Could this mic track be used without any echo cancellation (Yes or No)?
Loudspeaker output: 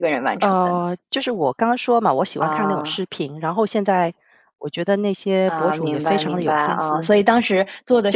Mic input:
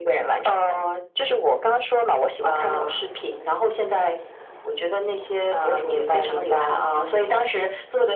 No